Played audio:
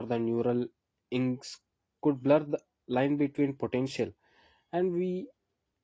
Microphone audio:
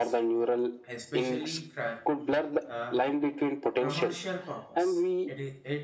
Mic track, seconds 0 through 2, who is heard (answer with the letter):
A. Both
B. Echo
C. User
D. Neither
A